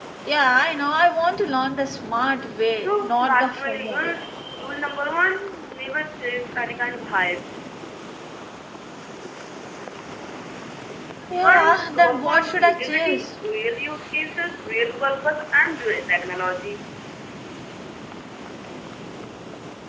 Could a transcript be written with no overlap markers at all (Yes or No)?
No